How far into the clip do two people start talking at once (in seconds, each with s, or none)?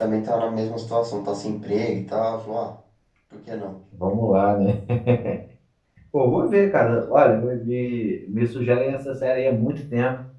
none